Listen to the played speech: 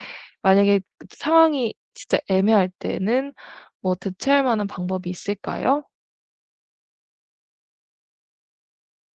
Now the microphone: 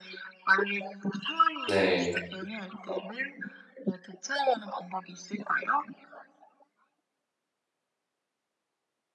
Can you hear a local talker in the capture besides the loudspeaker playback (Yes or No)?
Yes